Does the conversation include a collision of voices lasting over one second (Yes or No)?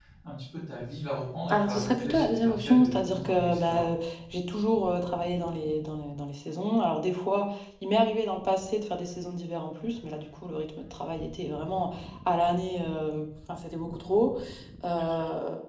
Yes